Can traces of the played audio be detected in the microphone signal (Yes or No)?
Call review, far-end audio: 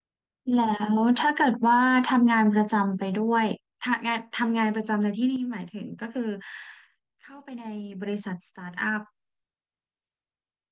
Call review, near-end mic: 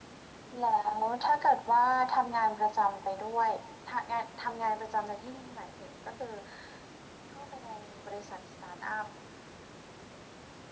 Yes